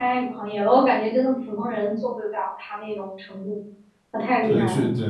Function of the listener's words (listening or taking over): taking over